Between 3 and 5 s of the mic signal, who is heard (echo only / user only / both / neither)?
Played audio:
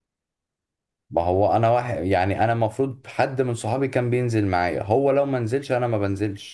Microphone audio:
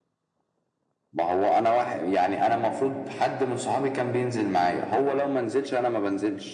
echo only